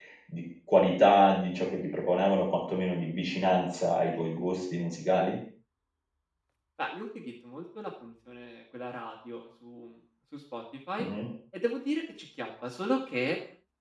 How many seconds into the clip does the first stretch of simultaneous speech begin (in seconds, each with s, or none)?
none